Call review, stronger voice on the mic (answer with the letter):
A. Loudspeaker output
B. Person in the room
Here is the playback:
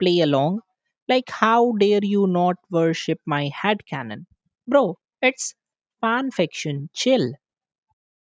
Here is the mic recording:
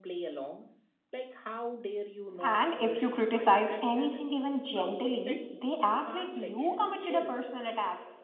B